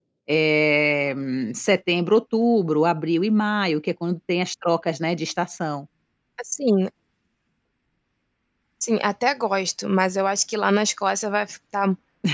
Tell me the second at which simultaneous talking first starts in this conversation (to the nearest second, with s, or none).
none